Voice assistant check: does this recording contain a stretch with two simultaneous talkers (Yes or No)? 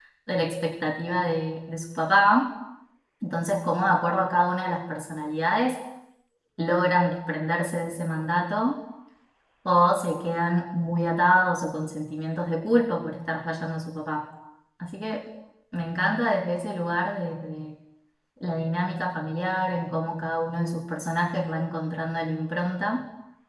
No